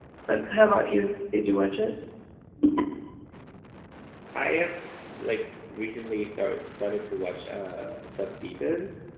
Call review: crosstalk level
none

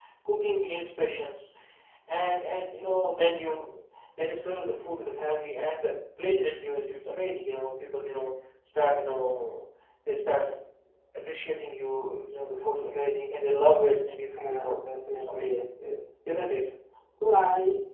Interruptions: present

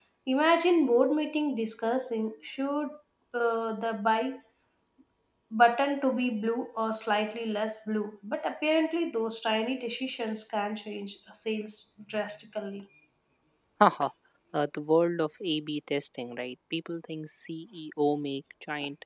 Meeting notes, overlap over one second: none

